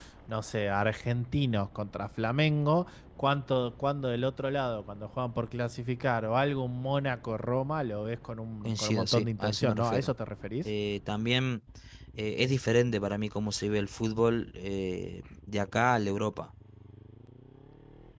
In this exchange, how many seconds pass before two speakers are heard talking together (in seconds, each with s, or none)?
8.6 s